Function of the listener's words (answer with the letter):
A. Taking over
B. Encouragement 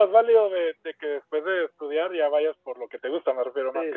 A